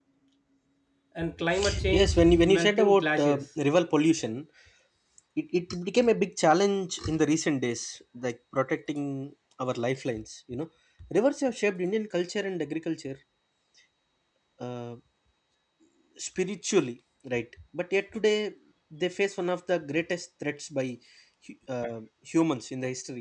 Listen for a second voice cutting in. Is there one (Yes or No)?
Yes